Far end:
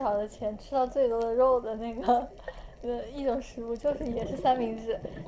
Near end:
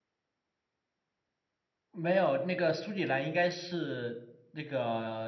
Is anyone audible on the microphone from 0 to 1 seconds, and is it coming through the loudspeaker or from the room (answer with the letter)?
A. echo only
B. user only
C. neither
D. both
C